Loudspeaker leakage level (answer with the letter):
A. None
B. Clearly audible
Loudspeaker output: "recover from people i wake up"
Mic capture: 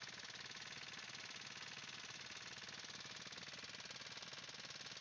A